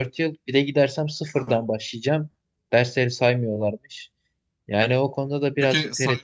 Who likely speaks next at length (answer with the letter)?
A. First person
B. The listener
B